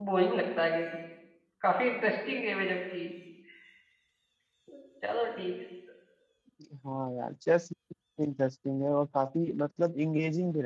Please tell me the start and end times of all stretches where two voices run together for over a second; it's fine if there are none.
none

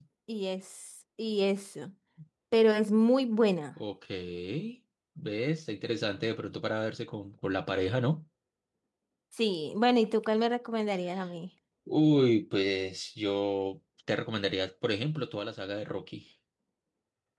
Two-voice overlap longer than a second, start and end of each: none

